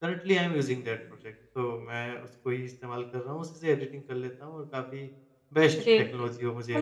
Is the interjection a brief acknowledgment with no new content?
No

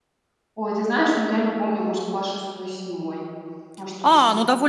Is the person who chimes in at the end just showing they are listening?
No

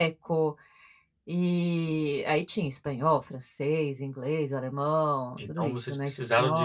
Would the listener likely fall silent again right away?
No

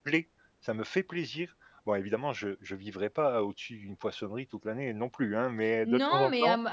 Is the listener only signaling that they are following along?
No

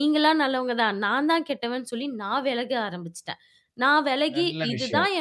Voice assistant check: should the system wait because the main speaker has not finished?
Yes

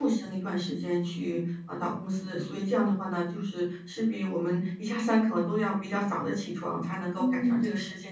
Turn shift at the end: Yes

